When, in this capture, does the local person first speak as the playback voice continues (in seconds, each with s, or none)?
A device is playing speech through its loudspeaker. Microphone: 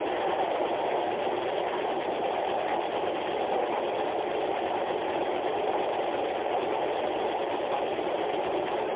none